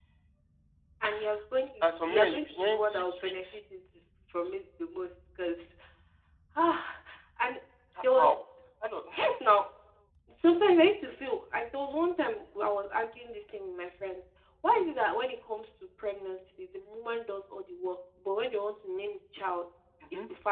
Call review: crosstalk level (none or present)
present